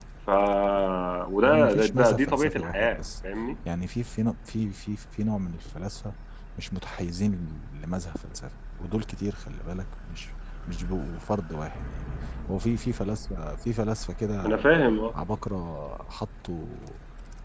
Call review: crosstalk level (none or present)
present